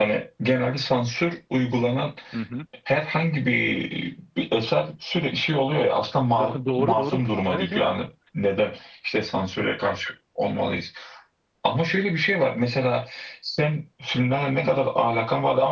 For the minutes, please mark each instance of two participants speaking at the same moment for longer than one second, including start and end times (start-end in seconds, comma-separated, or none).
6.4-7.9